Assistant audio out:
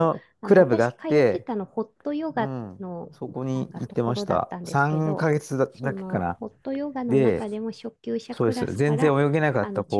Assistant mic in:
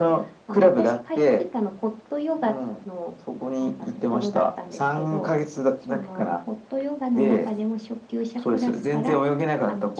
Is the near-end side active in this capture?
No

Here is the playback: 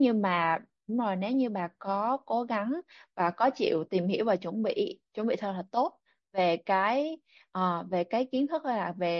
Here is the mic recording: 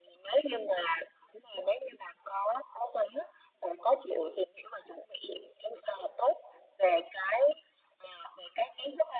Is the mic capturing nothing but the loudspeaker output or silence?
Yes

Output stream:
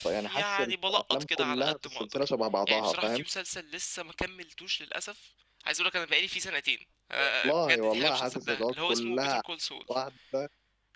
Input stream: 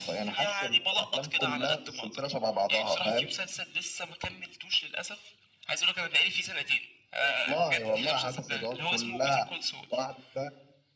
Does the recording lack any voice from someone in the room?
Yes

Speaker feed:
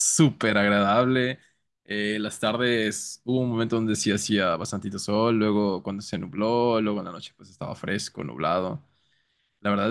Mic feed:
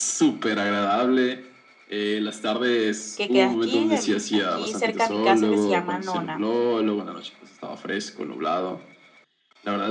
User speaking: Yes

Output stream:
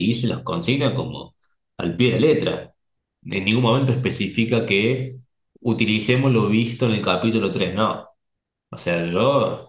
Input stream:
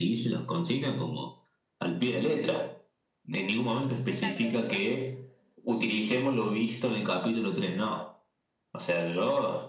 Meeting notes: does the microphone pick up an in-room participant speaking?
Yes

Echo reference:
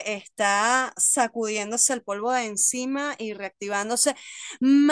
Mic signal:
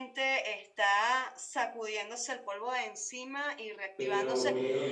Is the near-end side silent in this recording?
No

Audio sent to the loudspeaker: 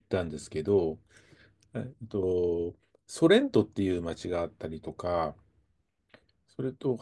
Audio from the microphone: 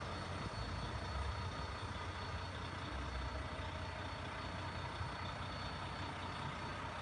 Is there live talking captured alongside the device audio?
No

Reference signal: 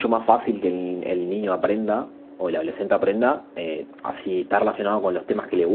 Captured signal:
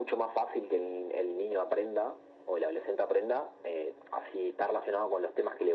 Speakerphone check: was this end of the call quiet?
Yes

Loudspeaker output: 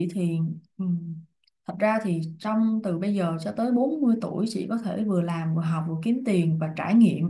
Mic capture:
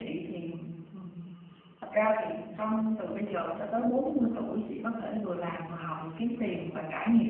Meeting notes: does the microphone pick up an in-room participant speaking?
No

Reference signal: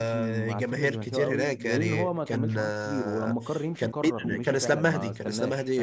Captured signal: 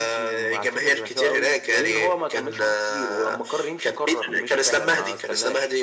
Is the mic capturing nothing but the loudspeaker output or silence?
Yes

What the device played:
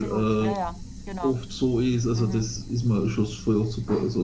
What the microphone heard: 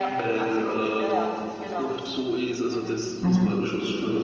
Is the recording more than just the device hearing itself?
Yes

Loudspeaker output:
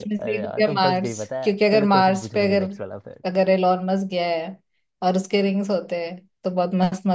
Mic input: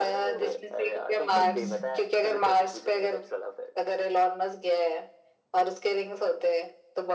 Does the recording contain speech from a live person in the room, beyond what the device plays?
Yes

